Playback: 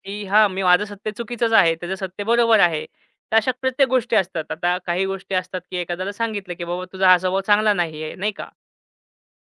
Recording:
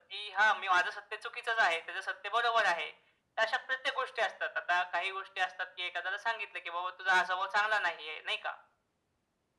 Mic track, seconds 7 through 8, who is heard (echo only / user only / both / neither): echo only